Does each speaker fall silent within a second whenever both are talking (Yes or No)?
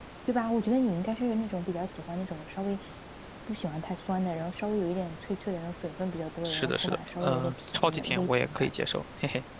No